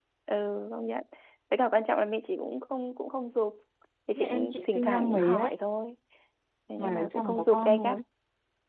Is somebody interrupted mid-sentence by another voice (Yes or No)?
Yes